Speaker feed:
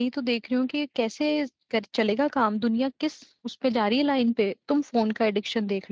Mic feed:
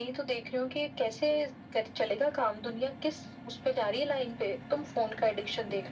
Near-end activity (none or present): none